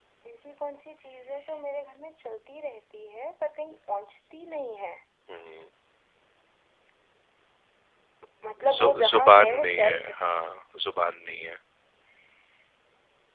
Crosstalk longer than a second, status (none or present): present